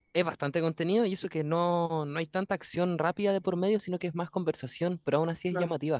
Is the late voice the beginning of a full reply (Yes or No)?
Yes